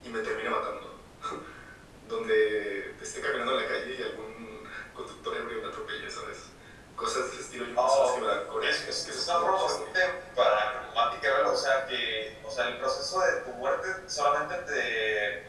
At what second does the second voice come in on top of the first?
7.8 s

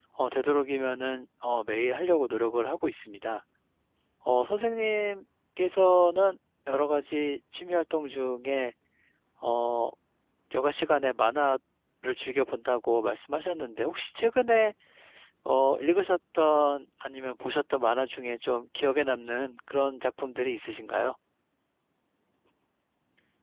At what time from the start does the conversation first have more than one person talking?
none

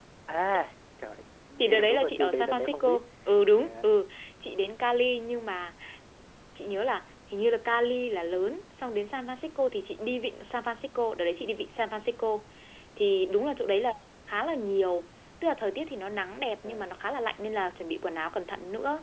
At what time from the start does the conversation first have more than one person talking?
1.7 s

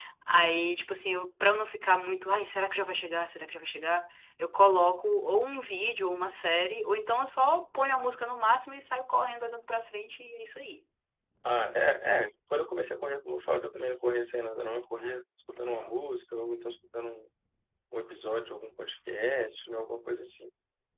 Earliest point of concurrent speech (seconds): none

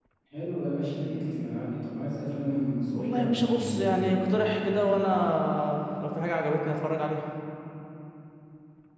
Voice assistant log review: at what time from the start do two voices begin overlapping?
2.9 s

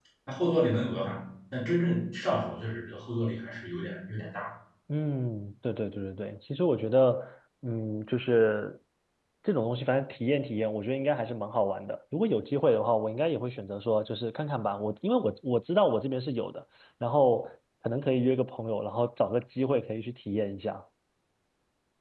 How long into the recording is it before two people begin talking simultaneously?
none

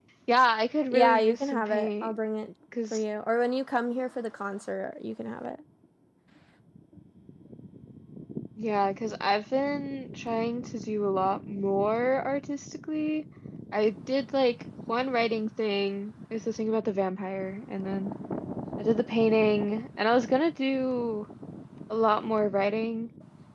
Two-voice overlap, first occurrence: 0.9 s

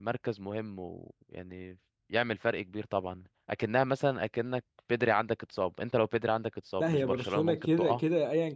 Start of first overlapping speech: 6.8 s

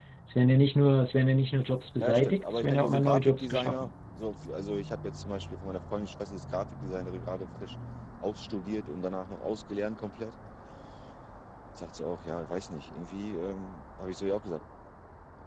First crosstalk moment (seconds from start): 2.0 s

